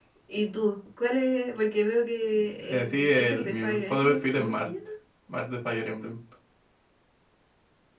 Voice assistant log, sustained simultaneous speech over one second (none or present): present